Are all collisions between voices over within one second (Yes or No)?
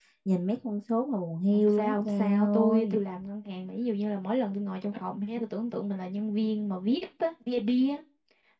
No